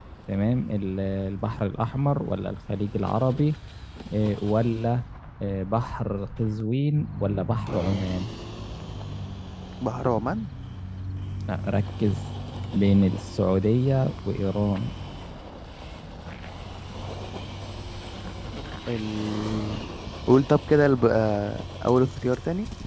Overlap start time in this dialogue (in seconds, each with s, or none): none